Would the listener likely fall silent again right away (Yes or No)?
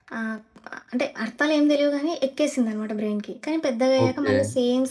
Yes